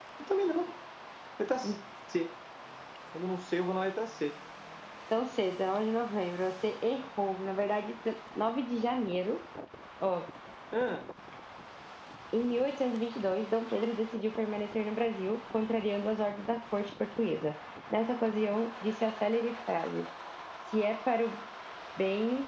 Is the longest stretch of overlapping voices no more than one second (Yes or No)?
Yes